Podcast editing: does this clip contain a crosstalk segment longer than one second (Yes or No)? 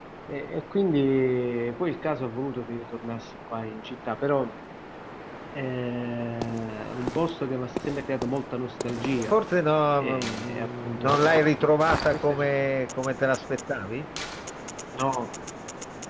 Yes